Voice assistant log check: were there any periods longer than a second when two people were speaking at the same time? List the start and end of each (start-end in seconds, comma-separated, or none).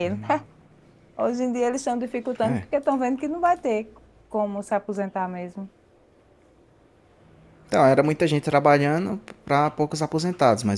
none